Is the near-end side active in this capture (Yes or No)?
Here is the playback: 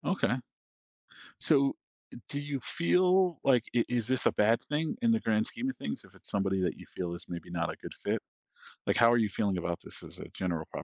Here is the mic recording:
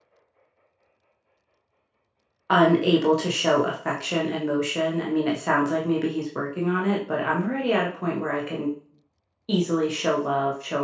Yes